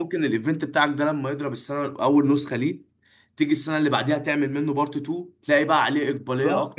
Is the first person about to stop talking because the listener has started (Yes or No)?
Yes